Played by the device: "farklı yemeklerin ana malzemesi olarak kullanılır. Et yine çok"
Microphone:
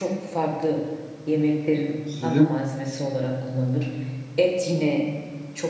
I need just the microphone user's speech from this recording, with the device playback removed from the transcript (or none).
Sizin